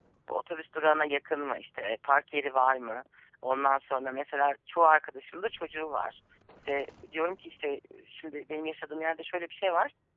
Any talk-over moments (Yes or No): No